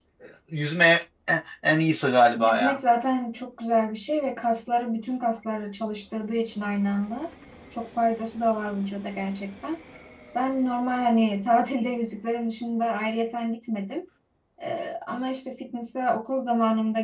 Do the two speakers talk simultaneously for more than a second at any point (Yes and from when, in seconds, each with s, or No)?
No